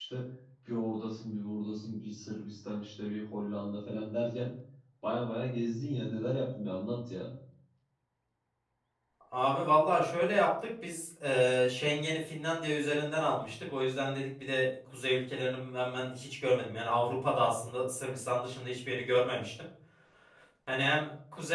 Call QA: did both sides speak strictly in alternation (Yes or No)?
Yes